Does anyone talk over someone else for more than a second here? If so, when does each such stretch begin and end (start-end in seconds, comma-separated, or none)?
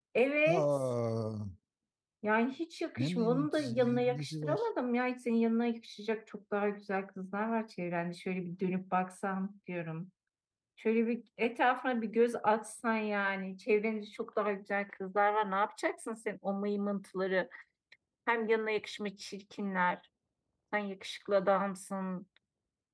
3.0-4.7